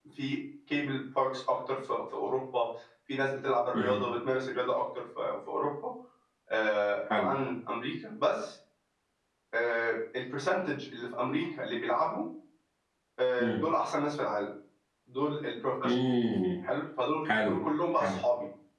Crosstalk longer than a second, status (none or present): none